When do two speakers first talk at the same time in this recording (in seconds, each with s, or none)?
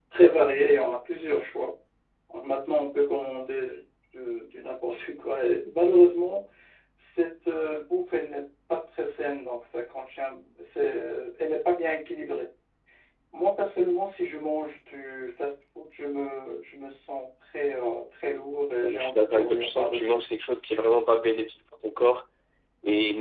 18.8 s